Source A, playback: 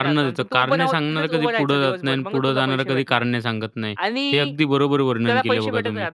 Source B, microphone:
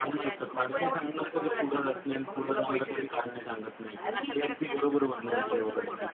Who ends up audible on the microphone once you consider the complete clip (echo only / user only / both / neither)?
both